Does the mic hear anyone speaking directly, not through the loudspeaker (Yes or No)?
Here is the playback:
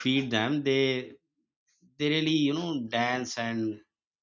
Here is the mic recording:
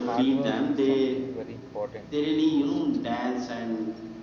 Yes